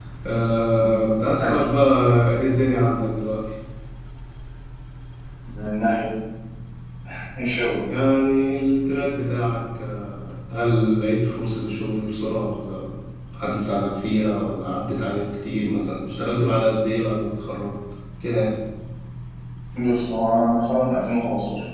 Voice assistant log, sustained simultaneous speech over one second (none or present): none